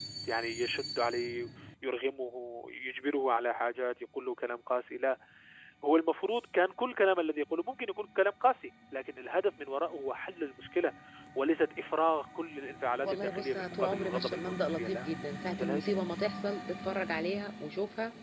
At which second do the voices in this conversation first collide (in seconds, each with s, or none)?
13.0 s